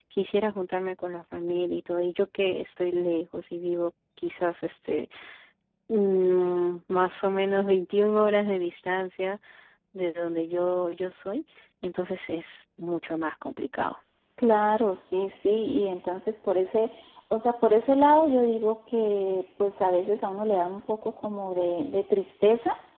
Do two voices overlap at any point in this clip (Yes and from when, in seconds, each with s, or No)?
No